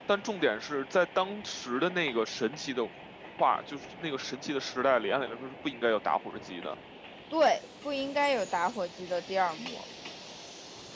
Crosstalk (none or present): none